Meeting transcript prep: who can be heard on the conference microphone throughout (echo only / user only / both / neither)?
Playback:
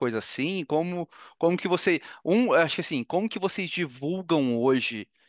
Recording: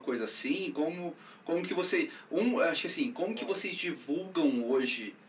both